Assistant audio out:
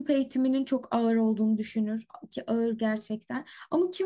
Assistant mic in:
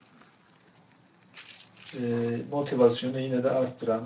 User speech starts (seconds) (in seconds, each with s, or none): 1.9 s